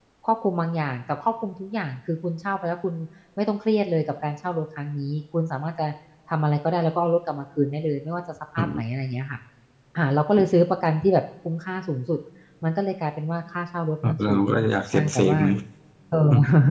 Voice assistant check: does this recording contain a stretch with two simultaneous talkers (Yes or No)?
Yes